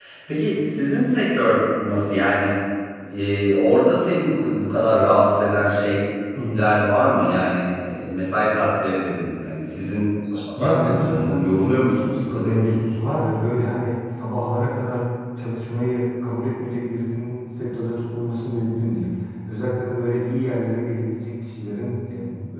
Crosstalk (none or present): present